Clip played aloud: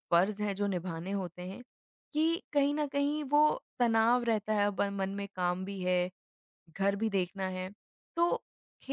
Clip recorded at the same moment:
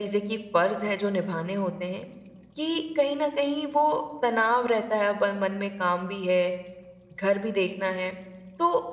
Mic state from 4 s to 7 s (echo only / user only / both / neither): echo only